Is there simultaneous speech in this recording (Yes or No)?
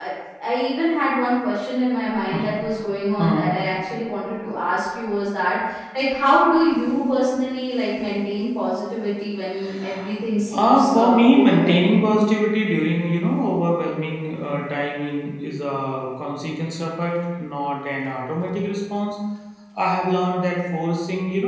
Yes